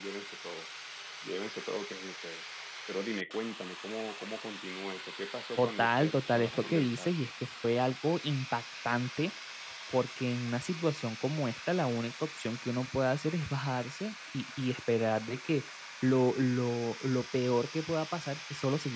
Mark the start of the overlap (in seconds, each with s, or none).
5.6 s